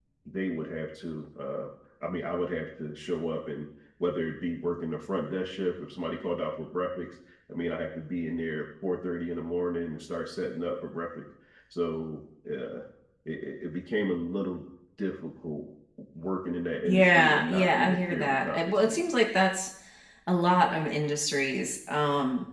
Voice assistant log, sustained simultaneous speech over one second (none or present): present